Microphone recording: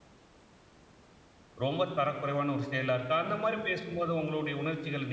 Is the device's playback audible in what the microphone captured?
No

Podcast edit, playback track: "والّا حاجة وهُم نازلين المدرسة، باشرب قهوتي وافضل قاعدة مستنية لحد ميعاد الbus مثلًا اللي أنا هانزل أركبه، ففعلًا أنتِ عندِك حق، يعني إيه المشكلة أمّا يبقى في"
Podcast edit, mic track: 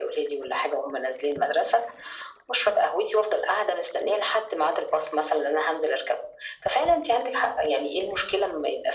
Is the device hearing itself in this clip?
Yes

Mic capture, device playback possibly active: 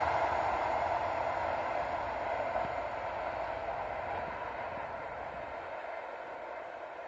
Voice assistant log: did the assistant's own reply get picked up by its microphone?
No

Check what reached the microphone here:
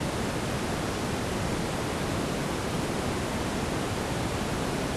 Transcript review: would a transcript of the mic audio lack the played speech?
Yes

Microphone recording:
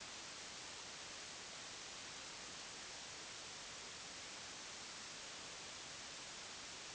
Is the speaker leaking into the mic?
No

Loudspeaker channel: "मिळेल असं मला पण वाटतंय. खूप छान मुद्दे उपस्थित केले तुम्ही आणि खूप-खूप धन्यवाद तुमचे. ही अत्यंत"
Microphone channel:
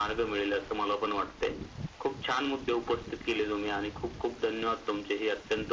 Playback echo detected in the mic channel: Yes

